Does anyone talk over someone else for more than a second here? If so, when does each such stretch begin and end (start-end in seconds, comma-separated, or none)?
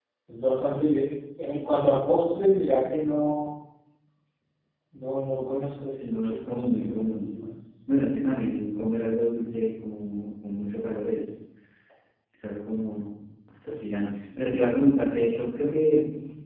6.0-7.3